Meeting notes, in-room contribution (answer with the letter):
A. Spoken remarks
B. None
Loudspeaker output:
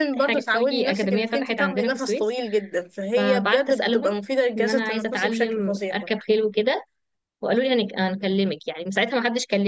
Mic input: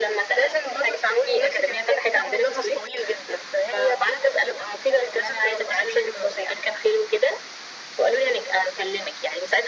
B